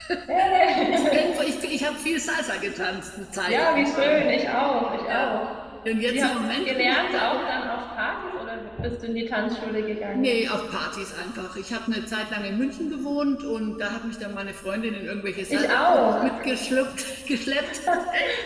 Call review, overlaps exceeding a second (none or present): present